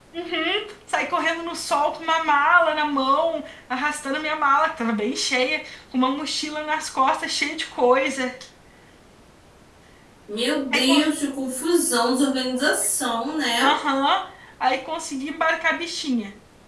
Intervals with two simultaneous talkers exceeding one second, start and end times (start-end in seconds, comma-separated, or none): none